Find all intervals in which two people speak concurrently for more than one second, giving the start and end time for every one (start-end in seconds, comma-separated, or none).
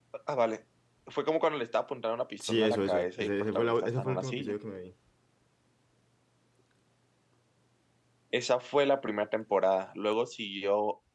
2.5-4.5